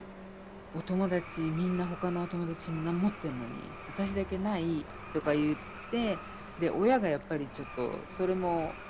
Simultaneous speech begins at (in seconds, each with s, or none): none